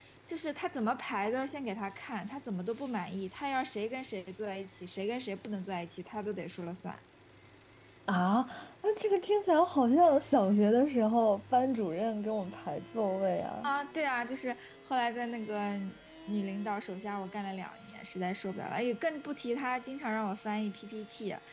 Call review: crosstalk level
none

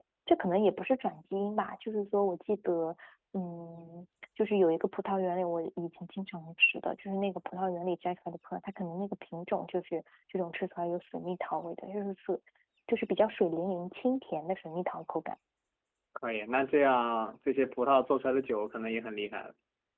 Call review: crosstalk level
none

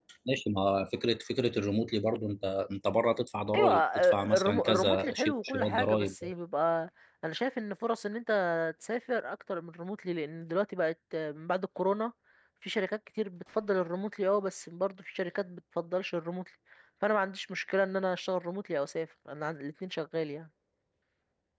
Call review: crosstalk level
present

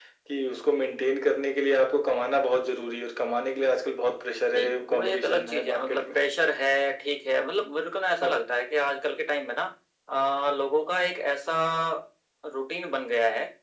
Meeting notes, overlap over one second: present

